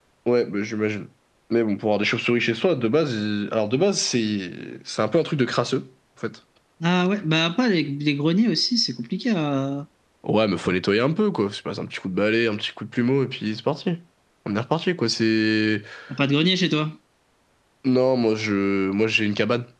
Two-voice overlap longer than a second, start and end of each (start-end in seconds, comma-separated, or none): none